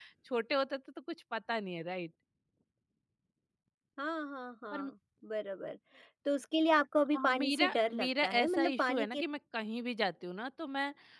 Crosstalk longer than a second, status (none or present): present